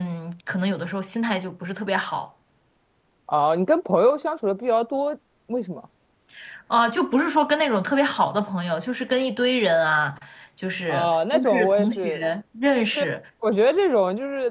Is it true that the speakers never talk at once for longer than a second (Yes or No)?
No